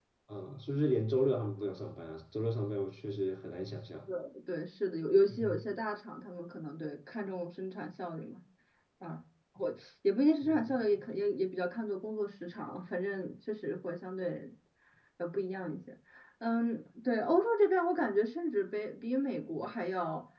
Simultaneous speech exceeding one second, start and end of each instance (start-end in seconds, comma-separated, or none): none